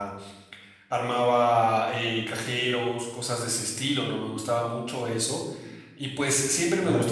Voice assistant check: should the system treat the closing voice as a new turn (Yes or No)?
No